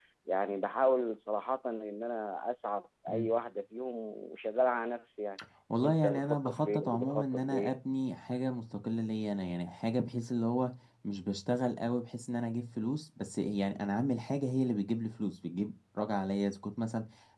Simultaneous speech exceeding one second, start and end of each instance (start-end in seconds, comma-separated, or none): 5.8-7.8